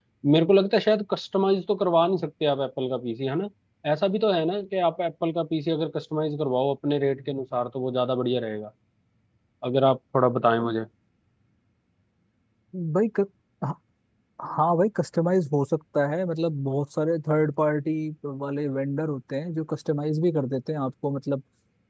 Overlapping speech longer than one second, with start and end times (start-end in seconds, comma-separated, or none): none